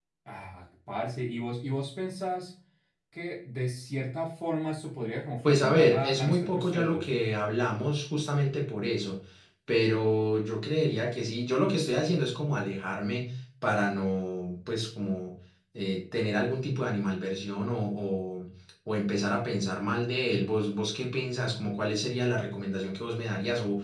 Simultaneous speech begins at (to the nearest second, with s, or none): 5 s